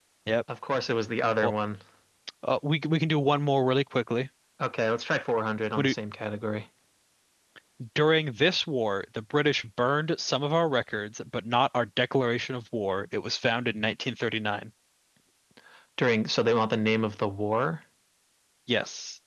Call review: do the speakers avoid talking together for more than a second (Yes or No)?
Yes